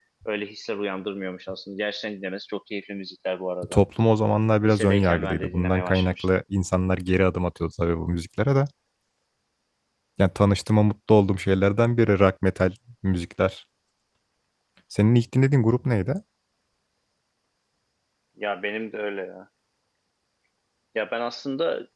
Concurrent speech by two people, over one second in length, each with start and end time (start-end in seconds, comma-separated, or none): 4.6-6.2